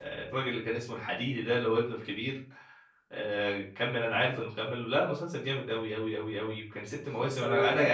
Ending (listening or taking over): listening